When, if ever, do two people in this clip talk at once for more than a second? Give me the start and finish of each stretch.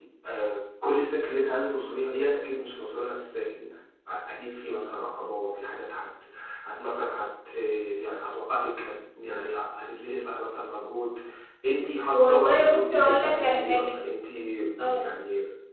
12.1-13.9

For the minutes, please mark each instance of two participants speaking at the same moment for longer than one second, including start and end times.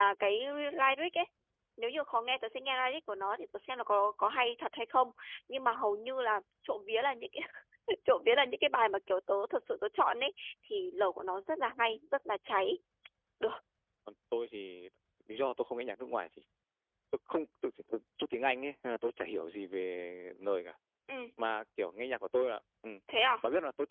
none

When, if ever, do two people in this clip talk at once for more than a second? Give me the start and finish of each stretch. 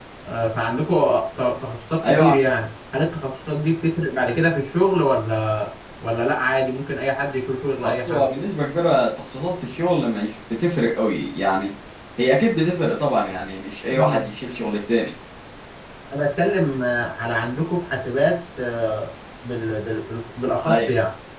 none

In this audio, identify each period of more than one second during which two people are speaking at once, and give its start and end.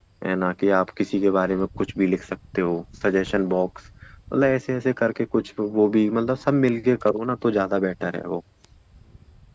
none

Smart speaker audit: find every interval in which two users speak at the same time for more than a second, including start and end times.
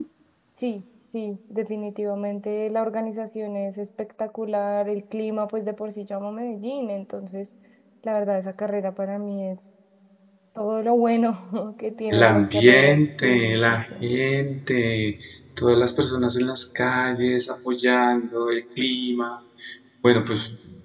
12.1-13.8

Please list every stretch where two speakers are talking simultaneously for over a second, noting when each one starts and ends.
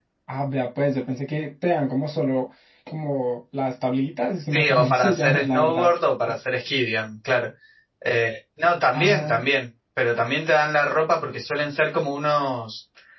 4.5-5.9

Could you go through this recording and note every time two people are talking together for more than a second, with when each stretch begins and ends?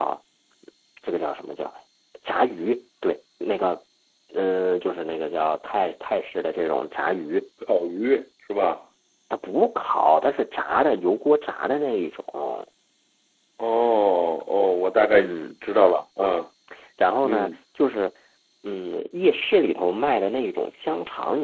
none

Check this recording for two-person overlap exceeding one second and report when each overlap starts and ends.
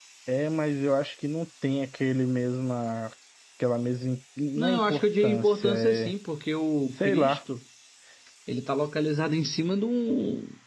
4.6-6.1

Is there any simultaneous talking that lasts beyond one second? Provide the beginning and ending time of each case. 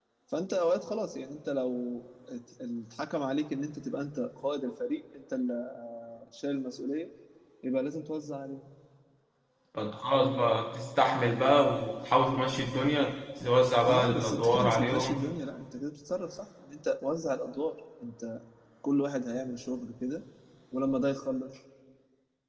13.9-15.3

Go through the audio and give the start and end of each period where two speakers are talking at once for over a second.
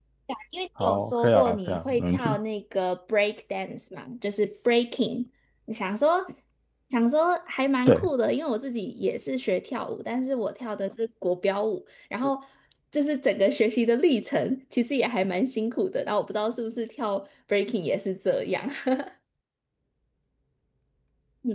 0.8-2.4

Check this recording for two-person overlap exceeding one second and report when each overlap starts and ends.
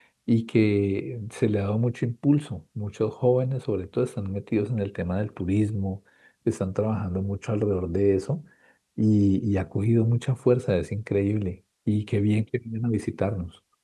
none

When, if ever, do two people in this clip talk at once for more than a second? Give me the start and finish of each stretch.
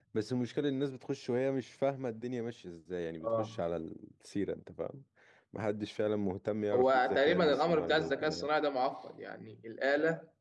6.7-8.5

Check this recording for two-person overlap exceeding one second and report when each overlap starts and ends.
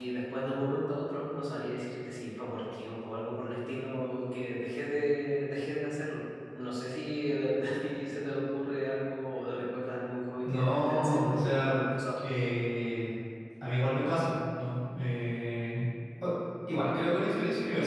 10.4-11.7

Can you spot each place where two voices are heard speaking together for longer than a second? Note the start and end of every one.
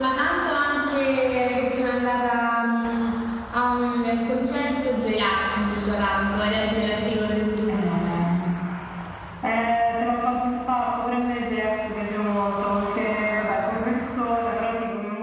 none

